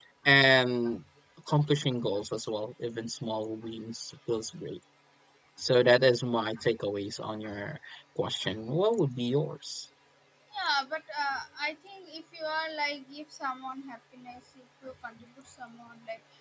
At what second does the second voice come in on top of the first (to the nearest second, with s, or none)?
none